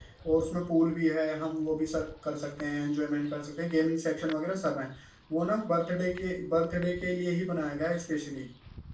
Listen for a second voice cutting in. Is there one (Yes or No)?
No